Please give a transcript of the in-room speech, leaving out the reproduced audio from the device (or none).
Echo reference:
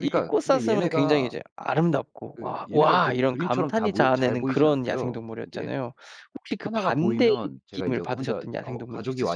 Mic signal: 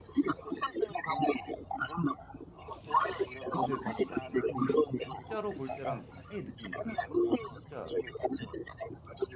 어 네. 봤죠, 봤죠. 근데 이게 진짜로 볼 때랑 그 아예 느낌이 달라요. 진짜